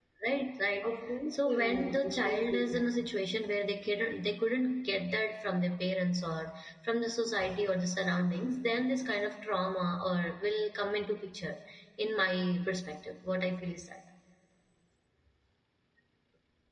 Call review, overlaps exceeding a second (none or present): present